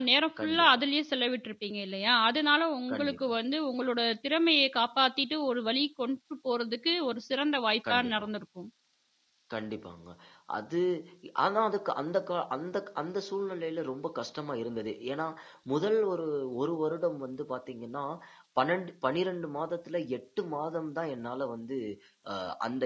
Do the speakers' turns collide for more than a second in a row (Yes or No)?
No